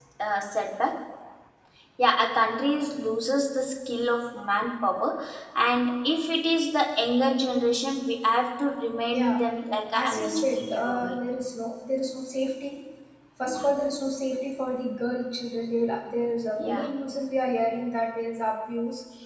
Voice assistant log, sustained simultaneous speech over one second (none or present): present